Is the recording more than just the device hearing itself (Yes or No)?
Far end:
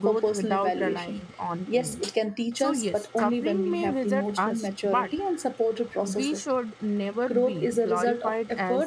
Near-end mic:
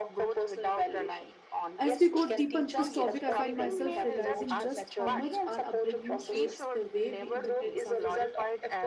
Yes